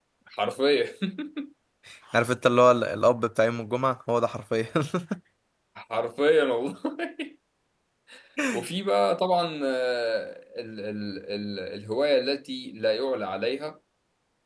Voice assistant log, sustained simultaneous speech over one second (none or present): none